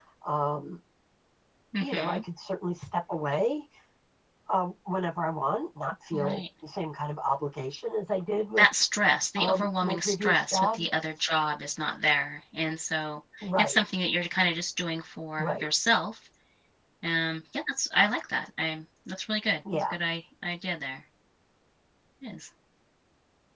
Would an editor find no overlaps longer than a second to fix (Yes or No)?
No